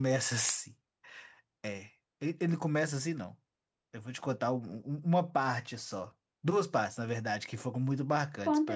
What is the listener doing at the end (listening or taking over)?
taking over